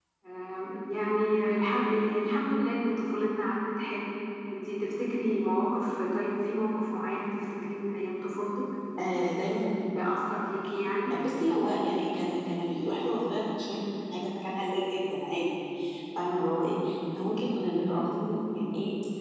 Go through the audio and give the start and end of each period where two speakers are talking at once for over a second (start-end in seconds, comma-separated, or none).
none